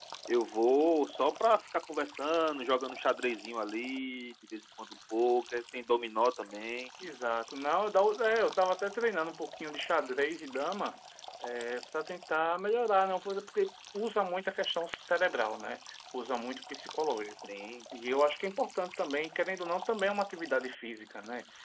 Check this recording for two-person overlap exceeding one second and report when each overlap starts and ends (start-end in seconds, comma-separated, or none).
none